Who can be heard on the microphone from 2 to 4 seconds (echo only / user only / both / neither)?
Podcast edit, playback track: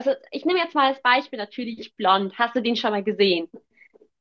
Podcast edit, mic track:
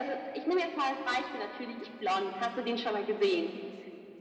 echo only